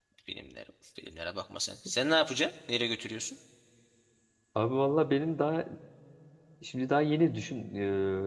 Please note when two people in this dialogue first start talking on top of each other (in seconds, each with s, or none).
none